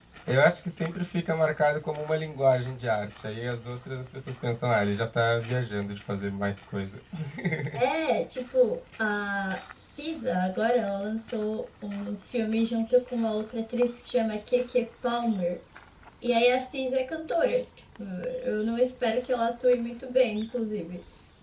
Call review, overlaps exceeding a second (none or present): none